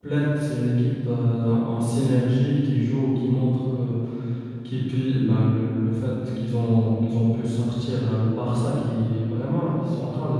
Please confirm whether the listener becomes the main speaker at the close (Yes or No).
No